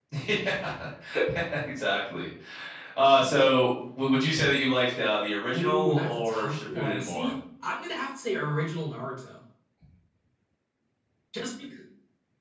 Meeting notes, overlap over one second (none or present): present